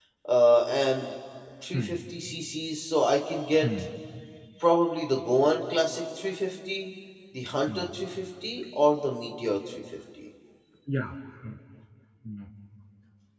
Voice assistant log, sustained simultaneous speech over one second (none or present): none